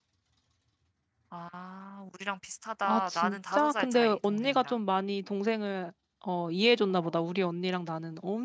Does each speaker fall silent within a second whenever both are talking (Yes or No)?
No